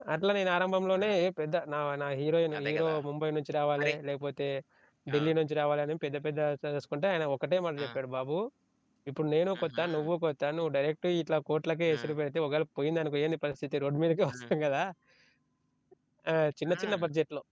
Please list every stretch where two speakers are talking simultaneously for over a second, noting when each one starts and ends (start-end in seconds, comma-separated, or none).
none